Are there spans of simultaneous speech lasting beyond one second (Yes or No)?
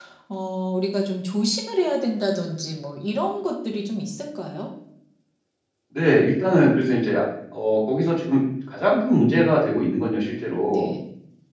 No